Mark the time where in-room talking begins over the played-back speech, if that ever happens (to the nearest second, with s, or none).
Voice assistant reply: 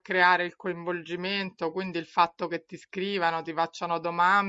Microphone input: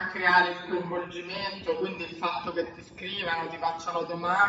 none